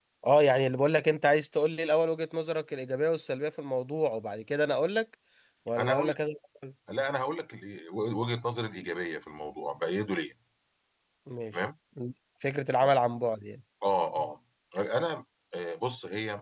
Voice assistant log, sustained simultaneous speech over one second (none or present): none